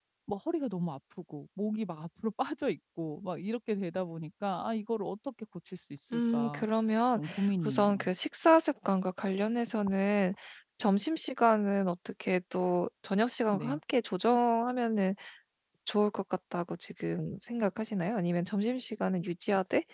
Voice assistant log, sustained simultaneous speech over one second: none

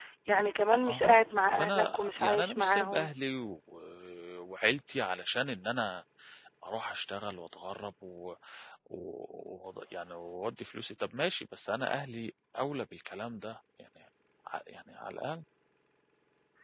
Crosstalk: present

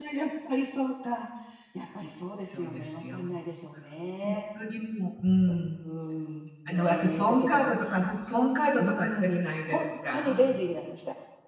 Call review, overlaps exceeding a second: present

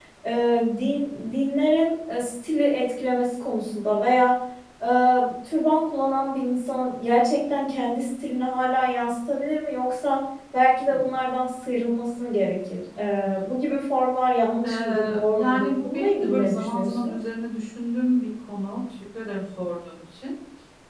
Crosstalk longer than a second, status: present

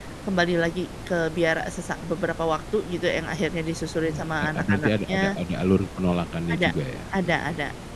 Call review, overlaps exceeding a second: present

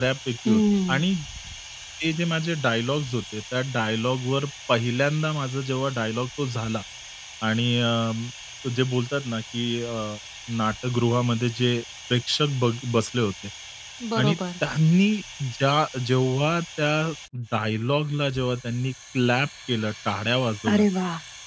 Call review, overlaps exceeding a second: none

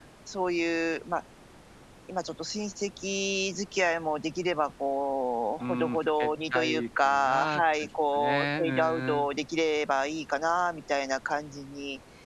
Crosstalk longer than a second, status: present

